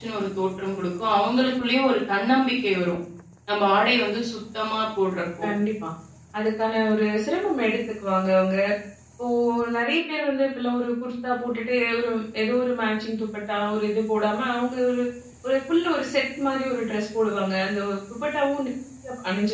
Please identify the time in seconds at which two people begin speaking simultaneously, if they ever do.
none

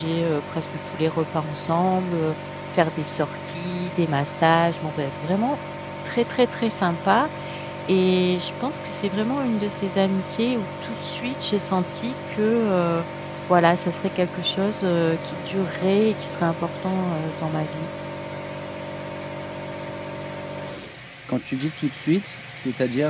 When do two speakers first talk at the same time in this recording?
none

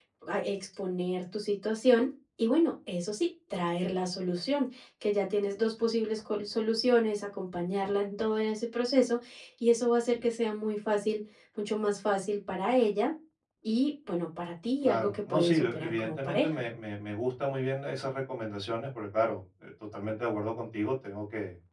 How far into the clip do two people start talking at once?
14.8 s

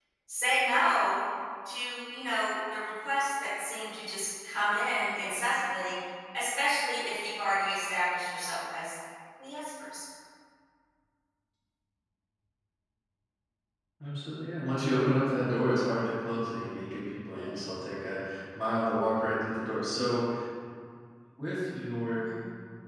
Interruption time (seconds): none

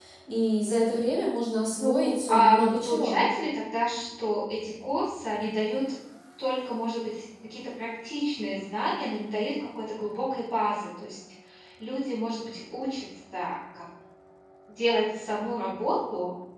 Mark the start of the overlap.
1.8 s

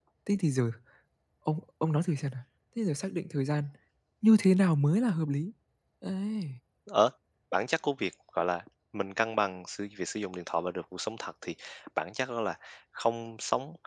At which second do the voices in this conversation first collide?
none

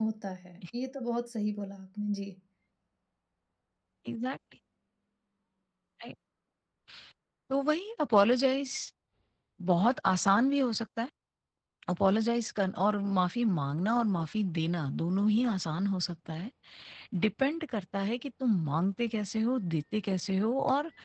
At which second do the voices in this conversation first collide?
none

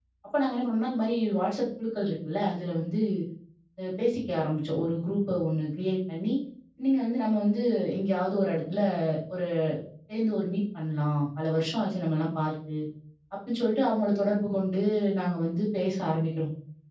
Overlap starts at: none

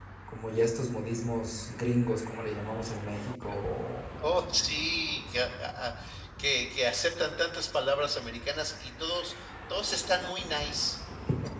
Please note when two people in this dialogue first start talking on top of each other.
none

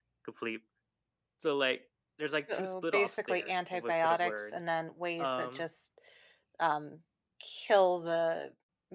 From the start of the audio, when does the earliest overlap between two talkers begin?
2.3 s

